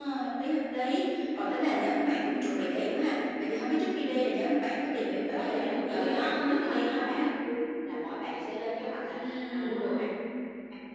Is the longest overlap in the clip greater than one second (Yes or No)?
Yes